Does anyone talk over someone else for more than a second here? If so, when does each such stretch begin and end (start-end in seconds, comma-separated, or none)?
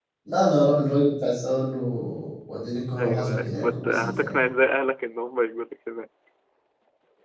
3.0-4.4